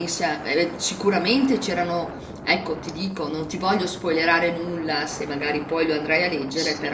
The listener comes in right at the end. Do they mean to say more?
Yes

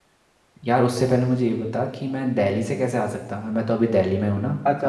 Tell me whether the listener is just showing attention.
No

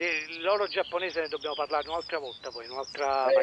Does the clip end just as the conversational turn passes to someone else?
Yes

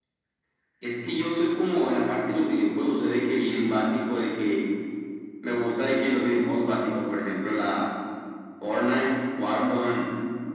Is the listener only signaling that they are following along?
Yes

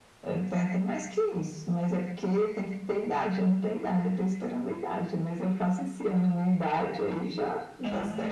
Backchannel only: No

